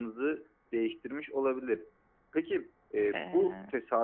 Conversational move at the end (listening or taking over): listening